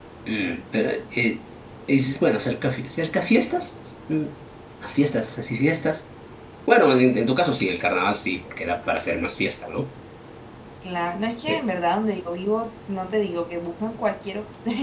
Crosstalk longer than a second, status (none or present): none